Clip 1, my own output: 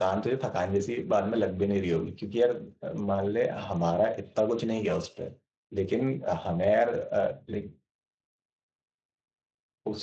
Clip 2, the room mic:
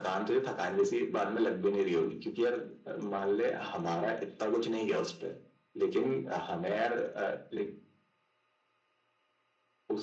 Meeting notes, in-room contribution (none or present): none